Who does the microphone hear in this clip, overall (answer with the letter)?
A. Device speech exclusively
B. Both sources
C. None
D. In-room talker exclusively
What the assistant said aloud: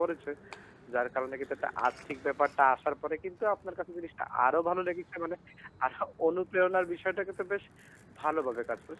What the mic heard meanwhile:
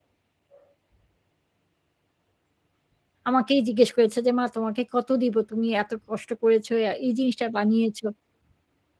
D